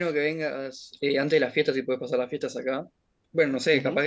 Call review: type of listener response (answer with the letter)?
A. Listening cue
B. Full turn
B